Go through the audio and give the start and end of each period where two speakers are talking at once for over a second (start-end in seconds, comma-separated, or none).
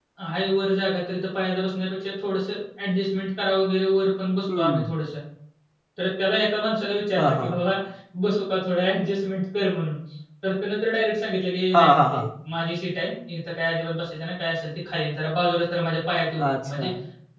none